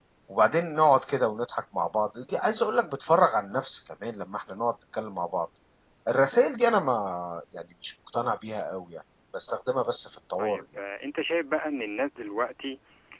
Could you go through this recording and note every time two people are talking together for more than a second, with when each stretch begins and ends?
none

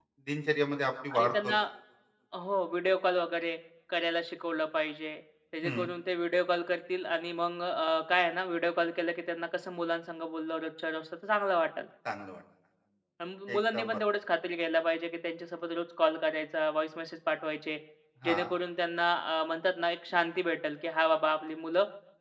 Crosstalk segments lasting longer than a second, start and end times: none

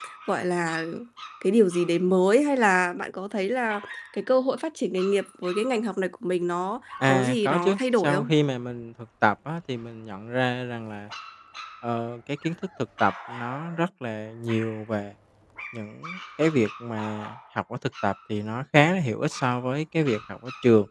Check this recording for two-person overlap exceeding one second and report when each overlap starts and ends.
7.1-8.3

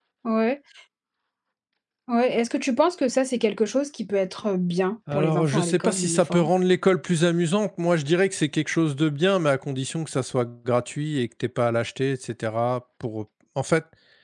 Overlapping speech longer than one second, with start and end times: 5.1-6.5

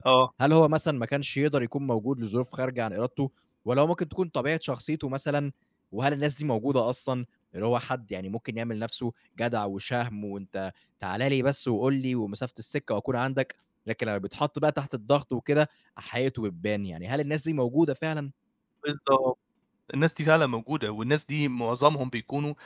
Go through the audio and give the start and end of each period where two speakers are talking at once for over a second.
none

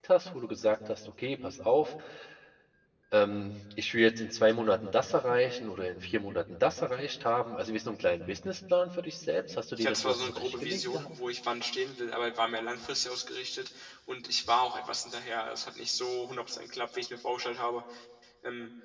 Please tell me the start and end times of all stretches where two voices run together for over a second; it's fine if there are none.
9.8-11.1

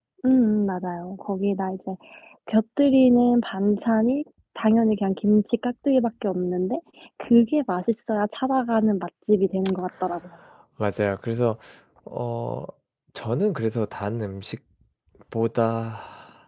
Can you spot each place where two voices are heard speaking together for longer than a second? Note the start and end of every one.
none

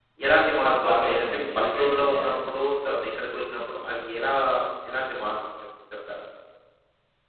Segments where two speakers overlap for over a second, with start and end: 0.6-2.1

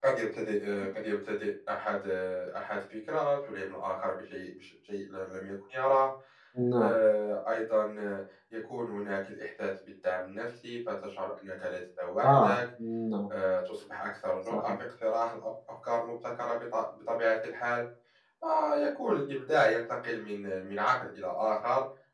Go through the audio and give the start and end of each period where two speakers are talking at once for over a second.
none

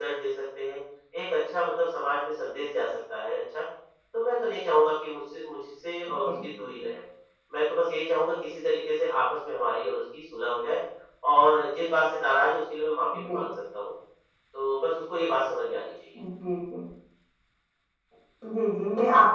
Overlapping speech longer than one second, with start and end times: none

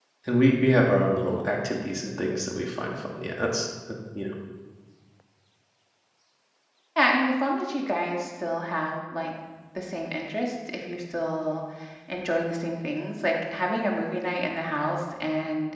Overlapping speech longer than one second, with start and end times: none

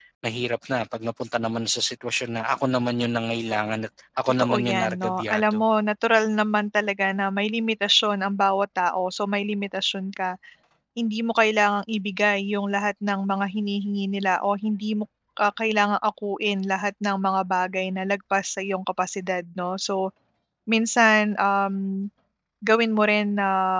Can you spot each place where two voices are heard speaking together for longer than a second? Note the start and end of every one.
4.4-5.6

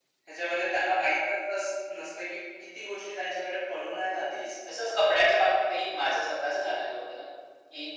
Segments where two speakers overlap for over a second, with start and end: none

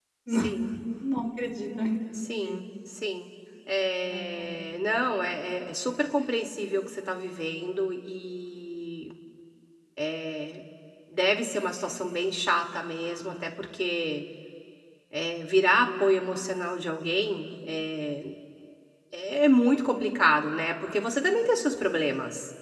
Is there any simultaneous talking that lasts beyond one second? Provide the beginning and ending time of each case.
none

